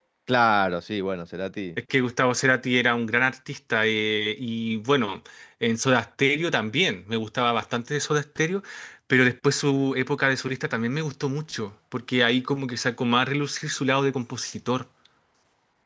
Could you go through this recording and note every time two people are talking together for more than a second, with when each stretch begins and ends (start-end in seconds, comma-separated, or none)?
none